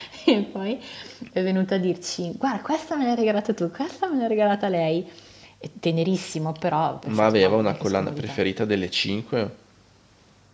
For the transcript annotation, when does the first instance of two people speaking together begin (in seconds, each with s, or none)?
7.0 s